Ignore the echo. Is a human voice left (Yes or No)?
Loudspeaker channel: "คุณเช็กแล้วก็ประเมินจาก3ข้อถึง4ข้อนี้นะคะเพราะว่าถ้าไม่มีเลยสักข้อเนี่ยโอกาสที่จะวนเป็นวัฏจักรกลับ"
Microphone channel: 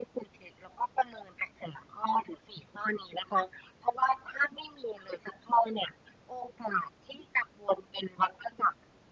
No